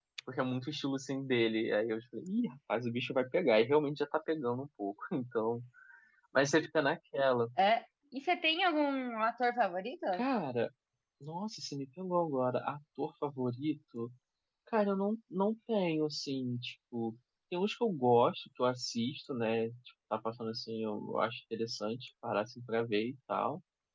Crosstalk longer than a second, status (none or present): none